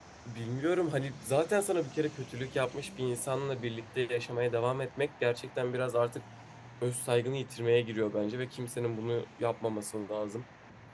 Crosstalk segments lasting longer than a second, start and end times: none

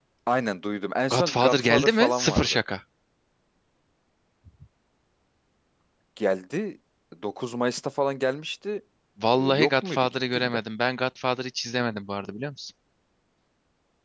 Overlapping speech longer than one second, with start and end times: 1.1-2.6, 9.3-10.6

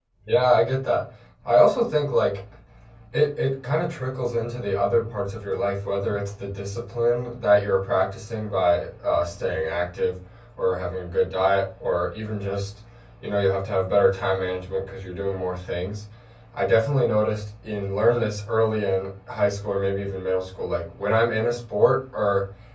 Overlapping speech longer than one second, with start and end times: none

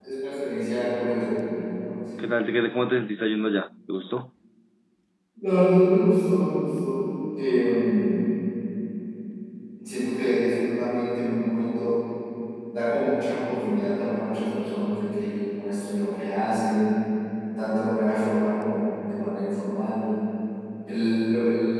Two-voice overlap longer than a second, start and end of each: none

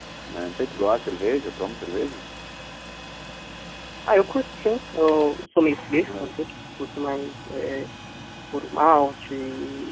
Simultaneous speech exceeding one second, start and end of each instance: none

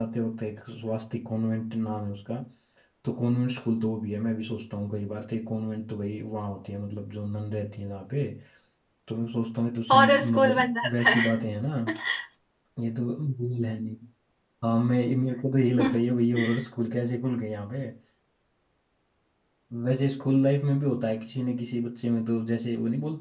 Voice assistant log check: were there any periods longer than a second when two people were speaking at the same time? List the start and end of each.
9.9-11.4

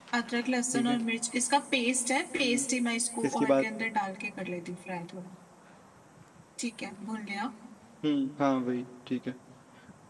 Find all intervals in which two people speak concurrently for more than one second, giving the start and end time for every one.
none

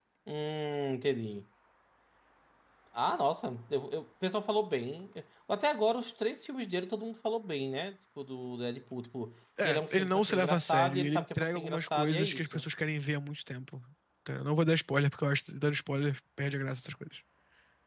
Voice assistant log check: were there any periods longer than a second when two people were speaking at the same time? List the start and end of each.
9.6-12.6

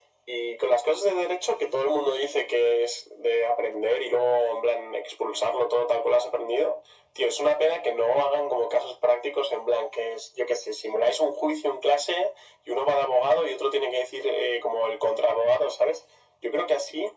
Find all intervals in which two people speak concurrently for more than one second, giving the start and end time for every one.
none

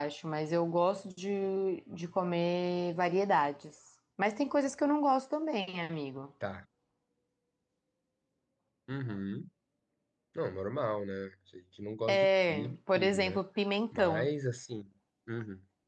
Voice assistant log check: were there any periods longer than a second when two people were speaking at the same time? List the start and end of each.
12.1-13.4

